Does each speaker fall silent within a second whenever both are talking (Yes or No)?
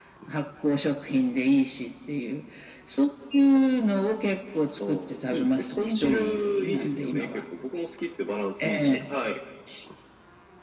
No